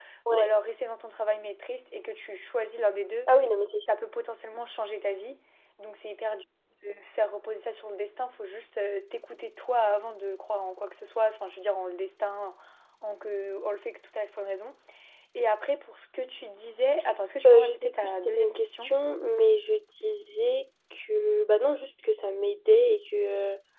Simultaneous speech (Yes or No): Yes